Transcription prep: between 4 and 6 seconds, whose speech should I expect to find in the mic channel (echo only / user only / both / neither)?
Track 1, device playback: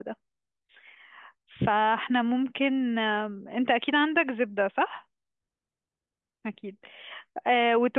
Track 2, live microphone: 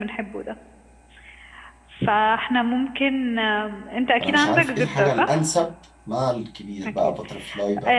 both